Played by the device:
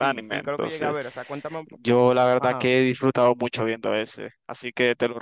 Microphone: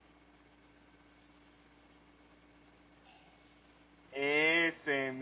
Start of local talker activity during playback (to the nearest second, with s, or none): 4 s